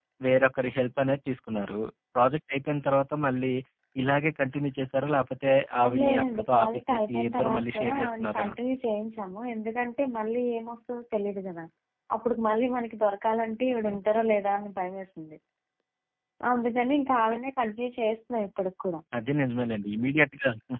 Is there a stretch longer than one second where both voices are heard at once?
Yes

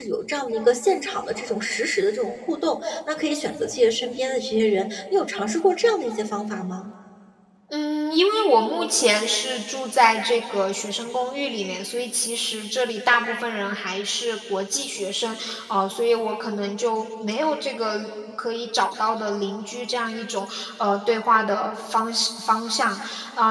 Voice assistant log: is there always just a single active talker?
Yes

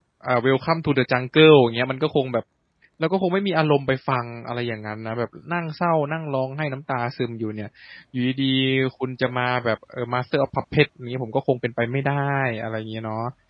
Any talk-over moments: No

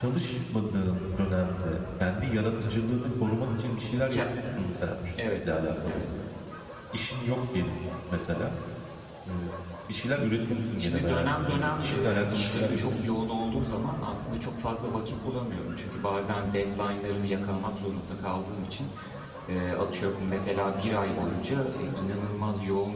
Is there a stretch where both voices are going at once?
Yes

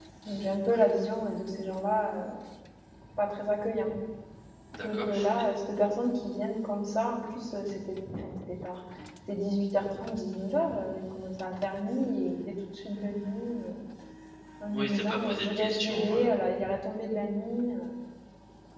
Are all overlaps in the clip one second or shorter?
No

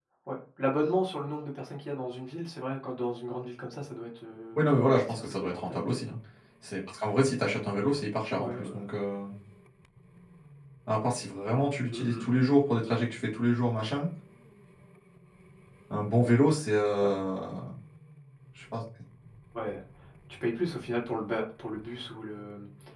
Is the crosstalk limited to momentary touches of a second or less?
No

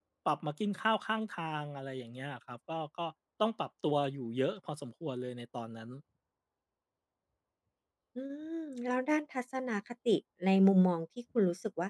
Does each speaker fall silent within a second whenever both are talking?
Yes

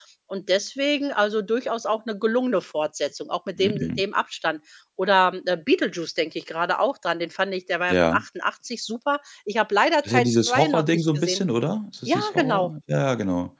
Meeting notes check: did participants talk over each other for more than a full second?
Yes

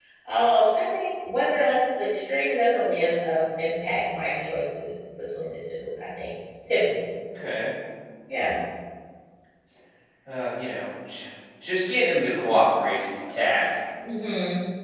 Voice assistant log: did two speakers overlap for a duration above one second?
No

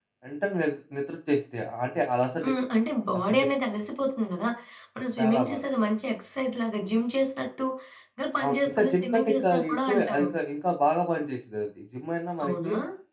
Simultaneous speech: Yes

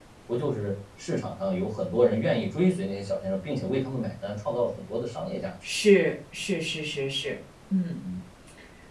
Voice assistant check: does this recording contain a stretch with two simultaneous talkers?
No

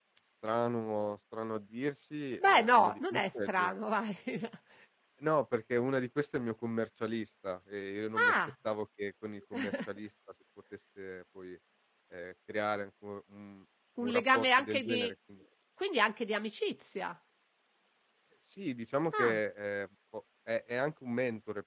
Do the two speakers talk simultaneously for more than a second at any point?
Yes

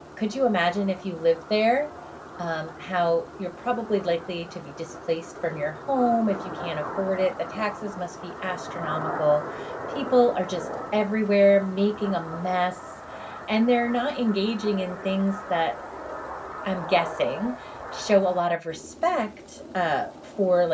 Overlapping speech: No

